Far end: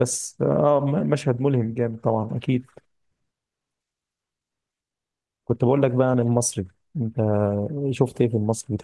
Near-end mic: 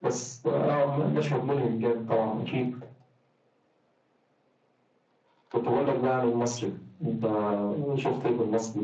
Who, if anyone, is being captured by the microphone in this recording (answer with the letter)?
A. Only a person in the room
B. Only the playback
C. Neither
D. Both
B